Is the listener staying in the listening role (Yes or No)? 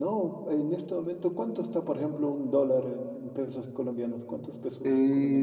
No